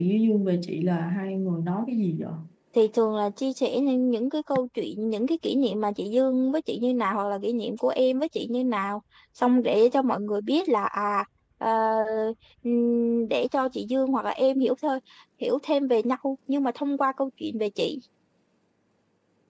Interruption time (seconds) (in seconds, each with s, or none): none